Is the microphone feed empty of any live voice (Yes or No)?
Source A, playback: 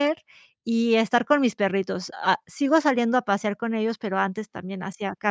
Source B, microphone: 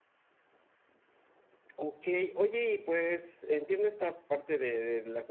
No